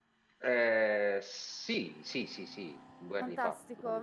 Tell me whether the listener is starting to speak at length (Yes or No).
Yes